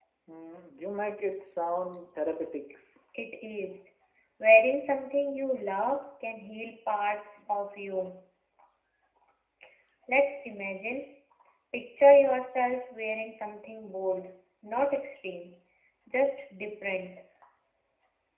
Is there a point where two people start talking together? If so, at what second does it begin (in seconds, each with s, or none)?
none